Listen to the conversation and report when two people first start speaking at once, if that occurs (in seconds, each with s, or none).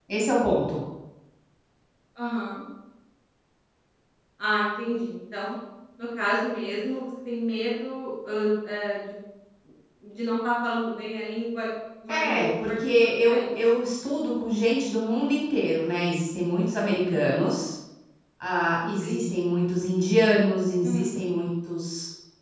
12.1 s